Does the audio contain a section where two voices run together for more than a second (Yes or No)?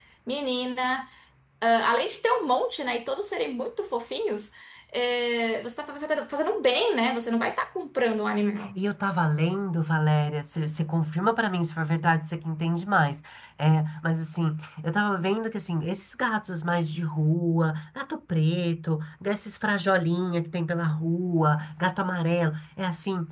No